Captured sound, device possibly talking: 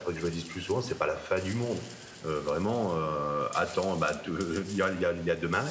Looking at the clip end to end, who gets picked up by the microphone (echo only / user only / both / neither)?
echo only